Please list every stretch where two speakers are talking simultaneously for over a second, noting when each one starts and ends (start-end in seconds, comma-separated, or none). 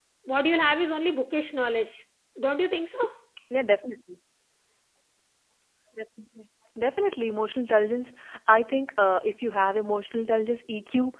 none